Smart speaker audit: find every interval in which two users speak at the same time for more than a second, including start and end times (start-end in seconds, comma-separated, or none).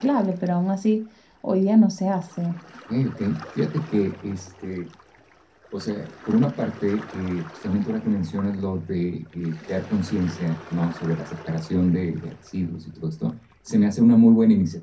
none